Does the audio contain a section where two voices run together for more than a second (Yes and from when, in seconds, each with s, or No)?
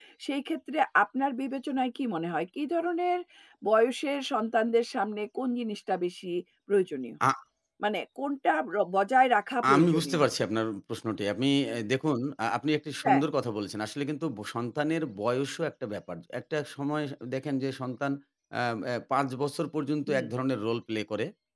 No